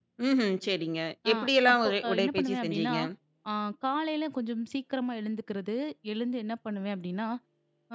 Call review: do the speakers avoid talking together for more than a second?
No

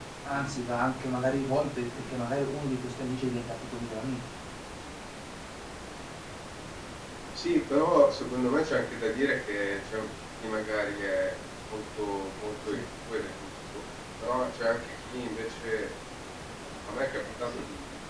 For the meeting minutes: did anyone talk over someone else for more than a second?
No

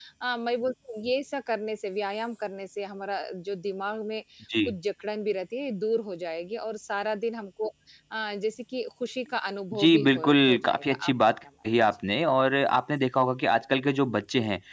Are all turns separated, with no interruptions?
No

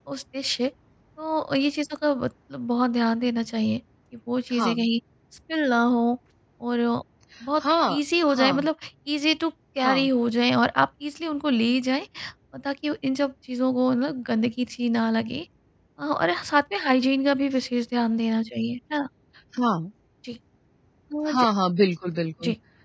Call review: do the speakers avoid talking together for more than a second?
Yes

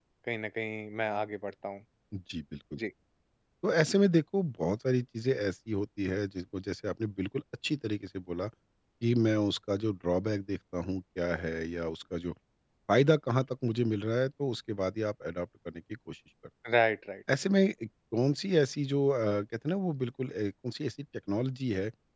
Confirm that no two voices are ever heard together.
Yes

